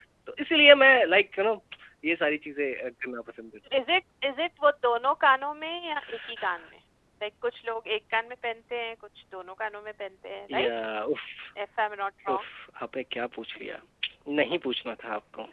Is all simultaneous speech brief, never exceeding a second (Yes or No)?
Yes